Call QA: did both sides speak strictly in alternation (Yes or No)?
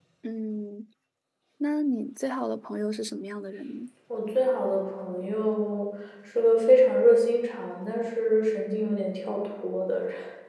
Yes